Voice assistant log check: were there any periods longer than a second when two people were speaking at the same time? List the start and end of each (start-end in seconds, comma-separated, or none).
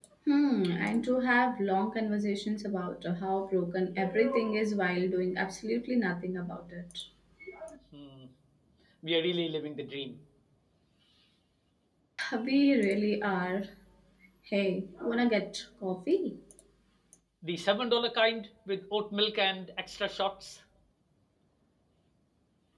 none